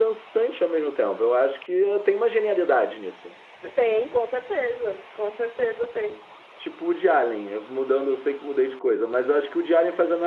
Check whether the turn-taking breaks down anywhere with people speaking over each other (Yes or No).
No